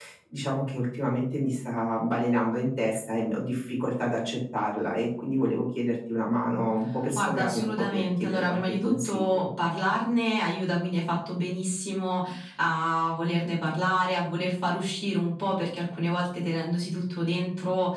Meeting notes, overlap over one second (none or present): present